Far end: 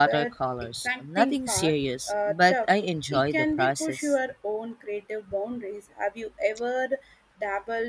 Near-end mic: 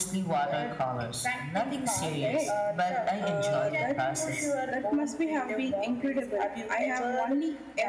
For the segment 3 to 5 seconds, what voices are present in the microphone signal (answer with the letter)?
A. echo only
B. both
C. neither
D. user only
B